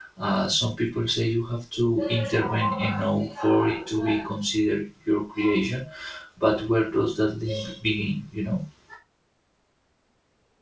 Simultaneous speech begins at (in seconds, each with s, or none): none